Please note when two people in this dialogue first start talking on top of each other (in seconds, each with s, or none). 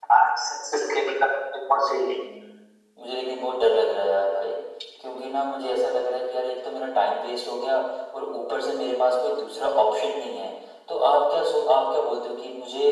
none